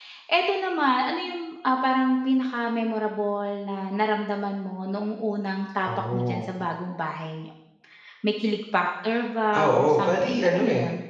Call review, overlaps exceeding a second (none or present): present